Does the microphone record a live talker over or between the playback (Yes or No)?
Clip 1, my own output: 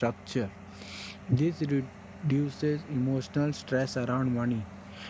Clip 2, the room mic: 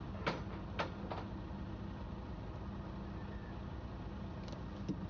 No